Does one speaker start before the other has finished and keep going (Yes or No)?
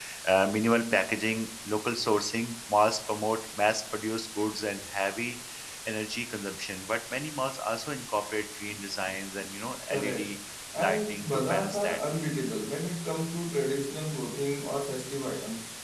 Yes